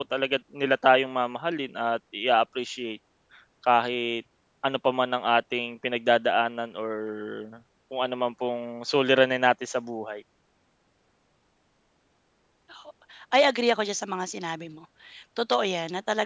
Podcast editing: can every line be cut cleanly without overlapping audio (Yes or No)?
Yes